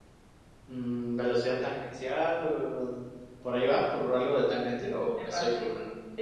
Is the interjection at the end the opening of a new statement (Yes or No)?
Yes